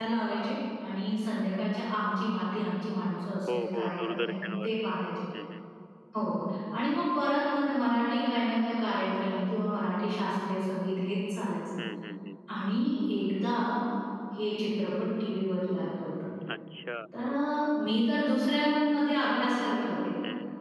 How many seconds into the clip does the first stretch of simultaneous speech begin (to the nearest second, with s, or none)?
3 s